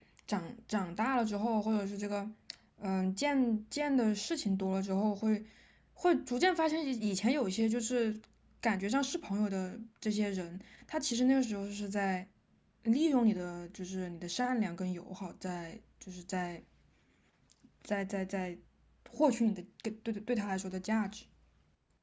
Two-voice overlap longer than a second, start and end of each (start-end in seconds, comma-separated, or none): none